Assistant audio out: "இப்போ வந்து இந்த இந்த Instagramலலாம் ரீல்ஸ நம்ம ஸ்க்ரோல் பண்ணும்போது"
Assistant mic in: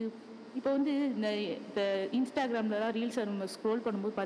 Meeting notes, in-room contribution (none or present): none